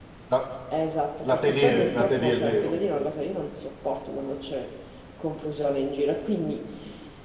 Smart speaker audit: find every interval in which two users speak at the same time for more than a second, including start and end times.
1.2-2.7

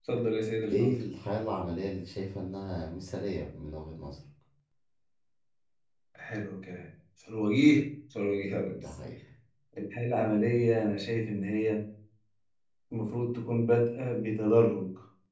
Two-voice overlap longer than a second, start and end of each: none

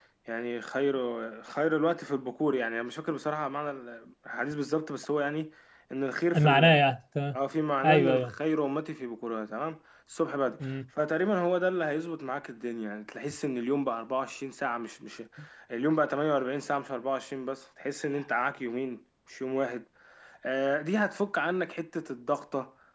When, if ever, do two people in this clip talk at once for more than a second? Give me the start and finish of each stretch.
none

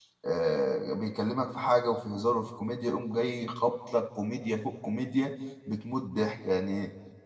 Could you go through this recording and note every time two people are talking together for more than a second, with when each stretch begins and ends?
none

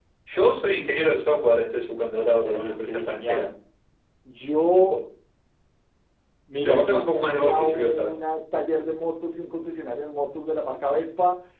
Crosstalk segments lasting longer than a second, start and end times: 2.2-3.5, 6.7-8.1

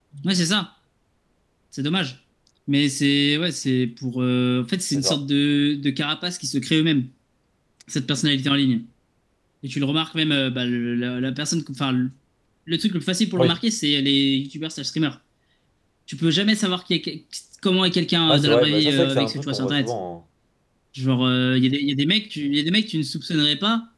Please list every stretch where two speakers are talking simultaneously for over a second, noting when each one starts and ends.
18.3-19.9

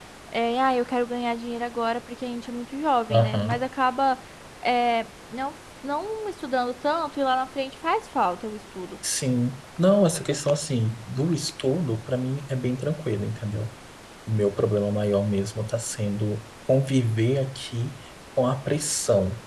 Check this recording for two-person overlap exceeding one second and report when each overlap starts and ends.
none

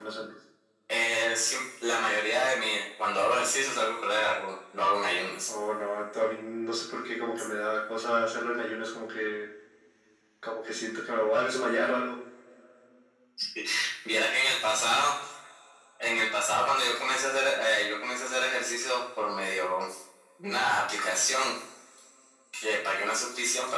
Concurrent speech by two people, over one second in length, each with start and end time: none

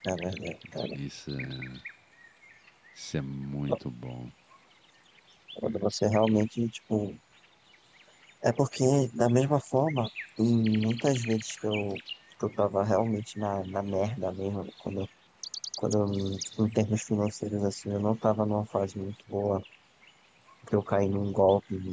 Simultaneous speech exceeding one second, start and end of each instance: none

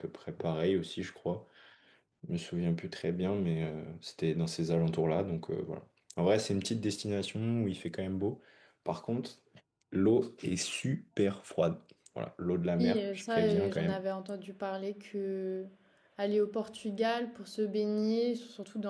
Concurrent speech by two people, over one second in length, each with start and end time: 12.8-14.0

